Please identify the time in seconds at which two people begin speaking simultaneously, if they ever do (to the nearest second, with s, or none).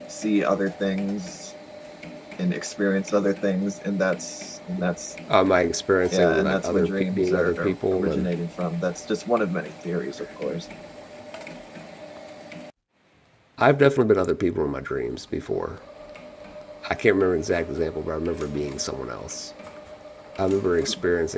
6 s